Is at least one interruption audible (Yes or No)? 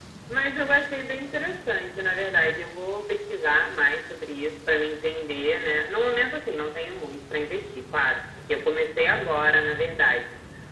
No